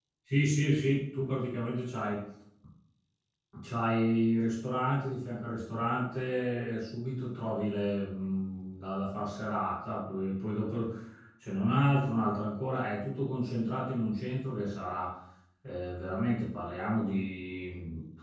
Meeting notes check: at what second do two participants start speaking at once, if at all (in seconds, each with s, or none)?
none